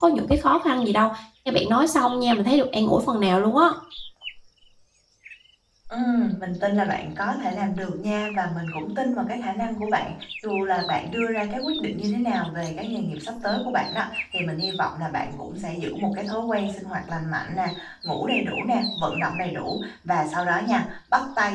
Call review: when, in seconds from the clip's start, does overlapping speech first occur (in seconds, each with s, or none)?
none